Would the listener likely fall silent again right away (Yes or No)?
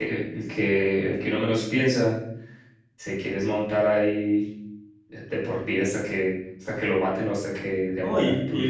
No